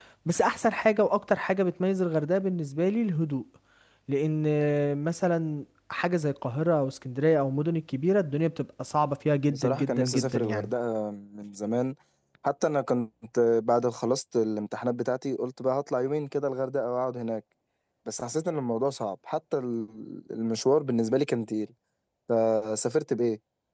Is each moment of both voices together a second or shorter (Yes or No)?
No